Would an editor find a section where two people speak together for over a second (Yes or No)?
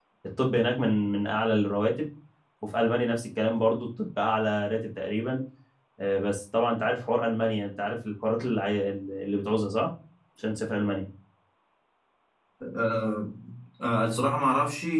No